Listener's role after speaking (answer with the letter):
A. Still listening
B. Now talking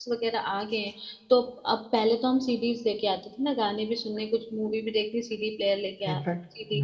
B